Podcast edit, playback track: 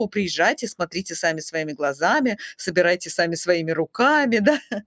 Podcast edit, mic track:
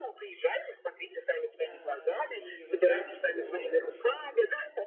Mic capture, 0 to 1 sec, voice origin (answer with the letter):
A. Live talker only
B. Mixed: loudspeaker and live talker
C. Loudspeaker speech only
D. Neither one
C